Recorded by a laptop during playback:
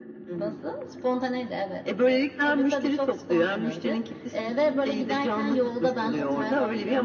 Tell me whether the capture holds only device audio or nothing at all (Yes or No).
Yes